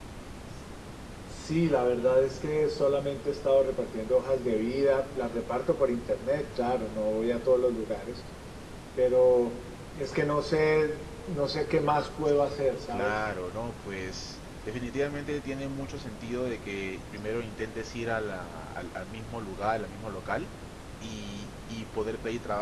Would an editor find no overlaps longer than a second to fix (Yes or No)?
Yes